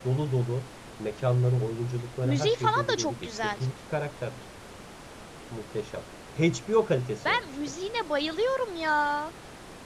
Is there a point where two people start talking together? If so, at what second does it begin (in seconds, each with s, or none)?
2.2 s